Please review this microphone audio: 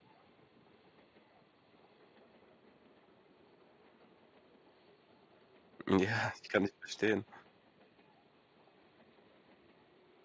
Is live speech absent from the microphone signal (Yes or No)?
No